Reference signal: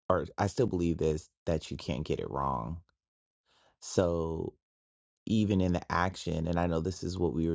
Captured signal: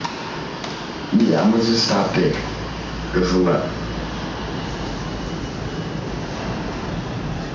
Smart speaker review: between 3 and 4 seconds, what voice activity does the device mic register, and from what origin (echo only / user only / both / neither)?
user only